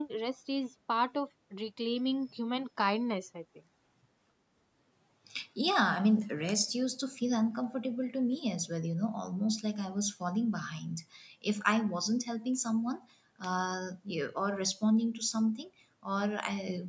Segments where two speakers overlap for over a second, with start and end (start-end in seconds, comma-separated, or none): none